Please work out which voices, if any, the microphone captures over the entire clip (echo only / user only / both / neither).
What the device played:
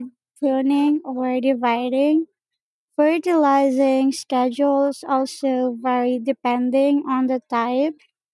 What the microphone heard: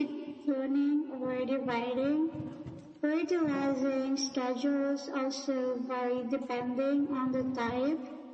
echo only